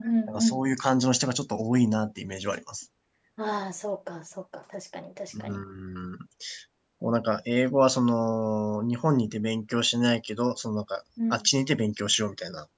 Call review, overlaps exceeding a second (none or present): none